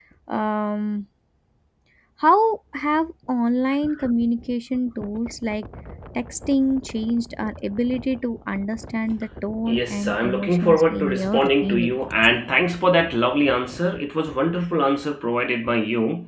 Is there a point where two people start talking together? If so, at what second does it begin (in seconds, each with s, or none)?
9.7 s